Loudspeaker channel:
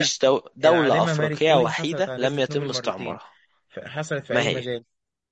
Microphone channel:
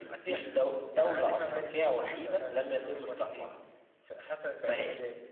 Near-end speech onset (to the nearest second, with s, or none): none